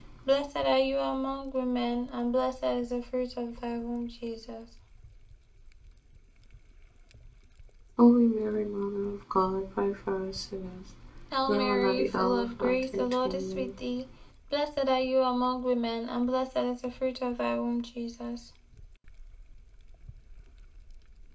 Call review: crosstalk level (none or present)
present